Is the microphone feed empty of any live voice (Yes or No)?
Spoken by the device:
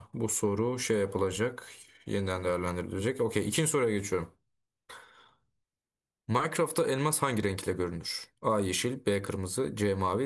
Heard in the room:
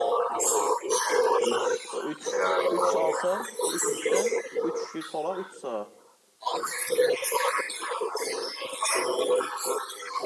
No